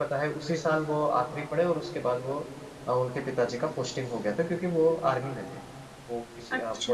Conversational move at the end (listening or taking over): listening